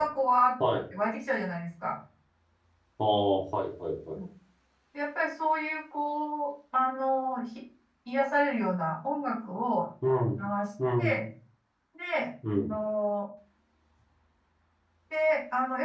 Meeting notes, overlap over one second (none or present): none